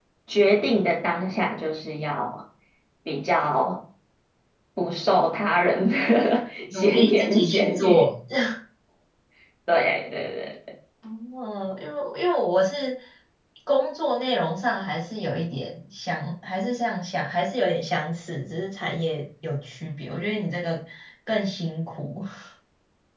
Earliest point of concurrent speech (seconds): 7 s

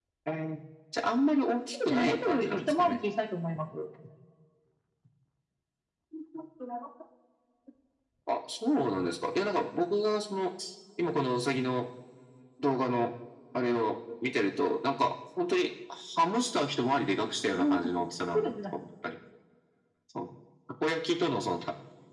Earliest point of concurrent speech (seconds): 2 s

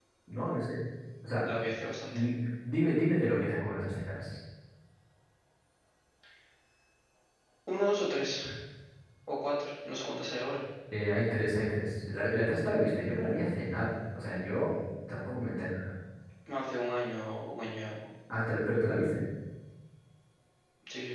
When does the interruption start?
none

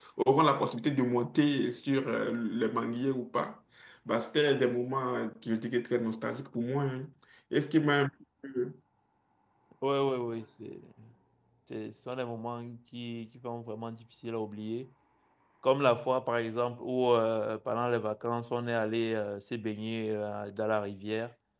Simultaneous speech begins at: none

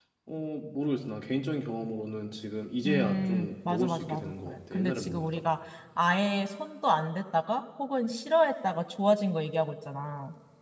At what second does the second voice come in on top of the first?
3 s

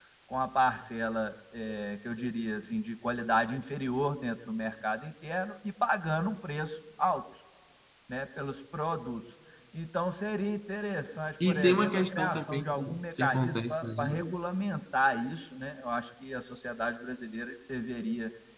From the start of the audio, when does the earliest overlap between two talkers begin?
11 s

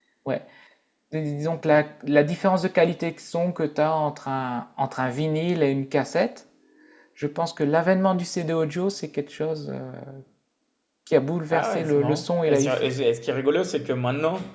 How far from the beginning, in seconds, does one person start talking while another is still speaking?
12 s

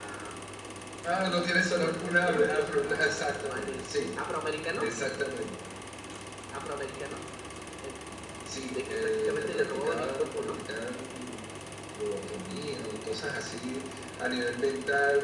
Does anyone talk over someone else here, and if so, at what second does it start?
2 s

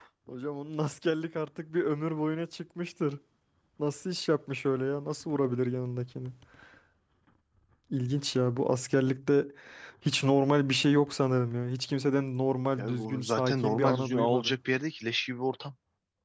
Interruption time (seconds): 13 s

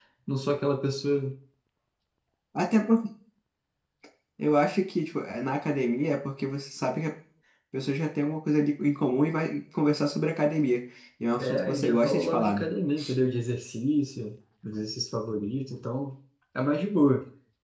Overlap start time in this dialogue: 11 s

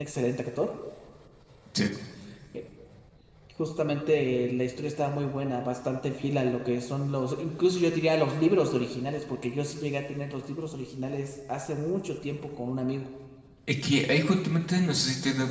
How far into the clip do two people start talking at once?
none

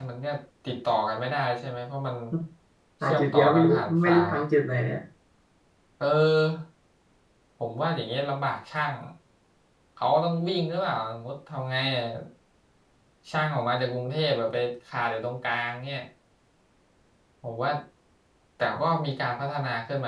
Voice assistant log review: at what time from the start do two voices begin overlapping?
3 s

